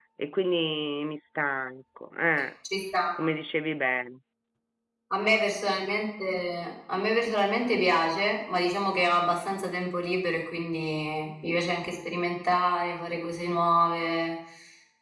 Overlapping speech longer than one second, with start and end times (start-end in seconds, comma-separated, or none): none